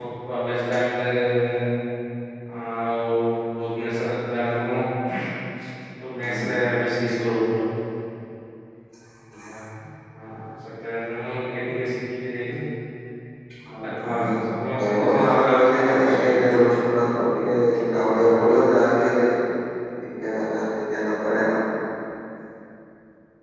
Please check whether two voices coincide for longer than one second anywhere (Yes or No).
Yes